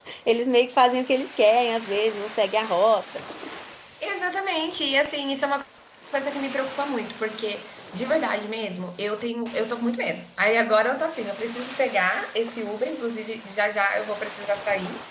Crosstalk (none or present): none